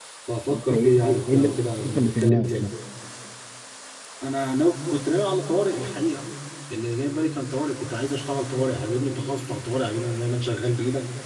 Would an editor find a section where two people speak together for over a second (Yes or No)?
Yes